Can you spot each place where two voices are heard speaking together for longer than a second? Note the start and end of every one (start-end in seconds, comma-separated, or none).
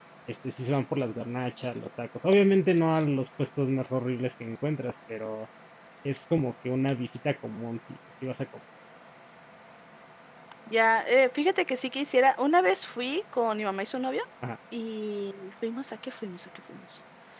none